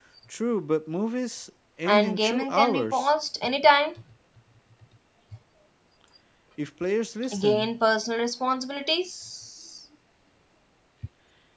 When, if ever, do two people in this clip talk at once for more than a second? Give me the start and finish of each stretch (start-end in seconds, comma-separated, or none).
1.9-3.1